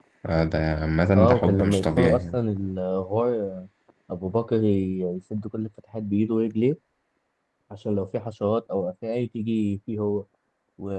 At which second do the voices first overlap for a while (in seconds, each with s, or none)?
1.2 s